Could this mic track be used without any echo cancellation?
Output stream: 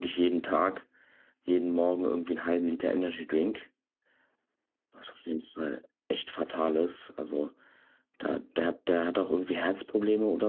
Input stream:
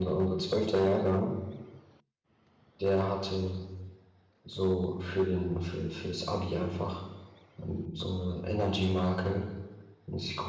Yes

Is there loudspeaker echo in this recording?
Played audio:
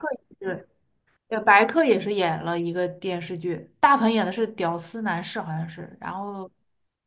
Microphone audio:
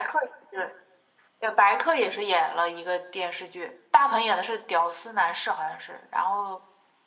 Yes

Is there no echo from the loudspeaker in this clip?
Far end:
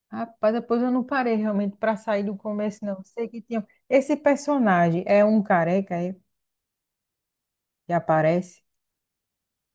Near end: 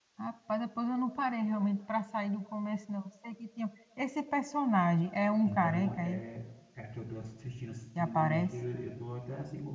No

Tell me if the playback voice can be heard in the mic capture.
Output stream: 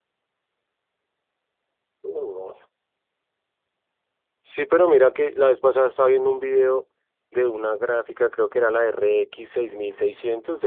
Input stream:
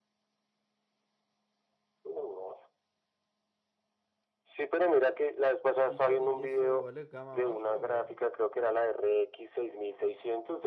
Yes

